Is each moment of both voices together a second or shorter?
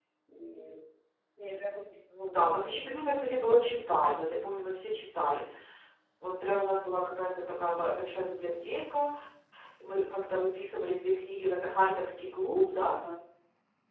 Yes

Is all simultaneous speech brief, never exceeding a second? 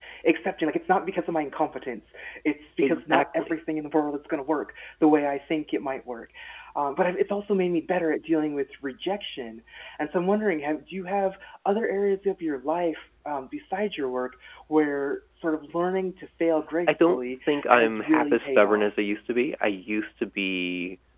No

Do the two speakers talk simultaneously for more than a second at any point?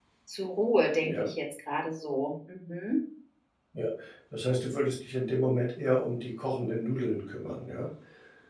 No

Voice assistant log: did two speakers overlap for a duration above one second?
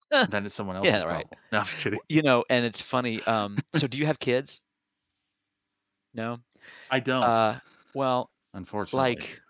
No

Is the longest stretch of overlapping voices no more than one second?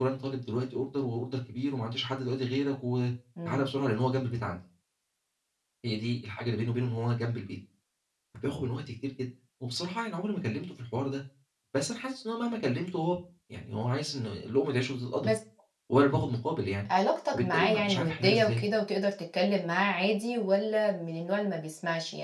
No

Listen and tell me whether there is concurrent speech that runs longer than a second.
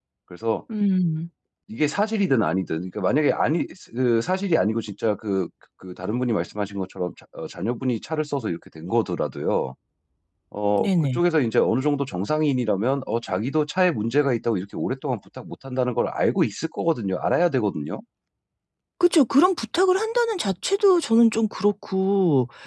No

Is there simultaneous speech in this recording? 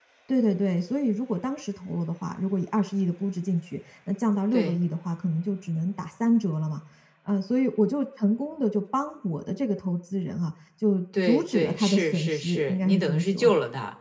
Yes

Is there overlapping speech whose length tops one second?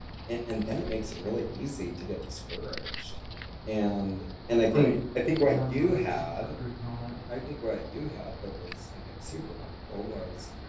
Yes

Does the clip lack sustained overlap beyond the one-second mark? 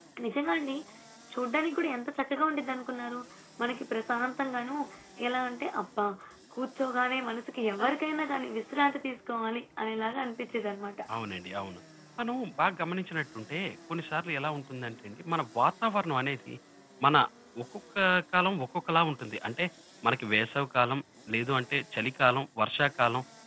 Yes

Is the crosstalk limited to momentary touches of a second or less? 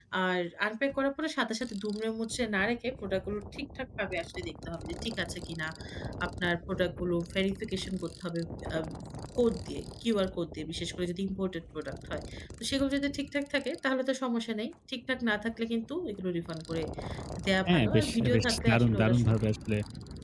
No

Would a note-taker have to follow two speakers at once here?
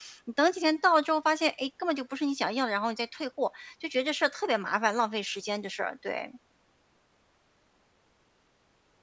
No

